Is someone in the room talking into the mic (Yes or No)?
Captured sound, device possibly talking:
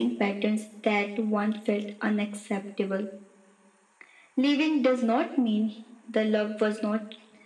No